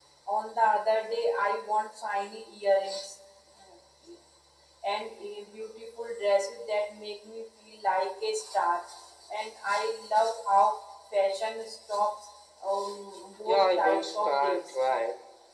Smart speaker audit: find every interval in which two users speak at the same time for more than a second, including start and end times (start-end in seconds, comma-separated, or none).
13.4-14.8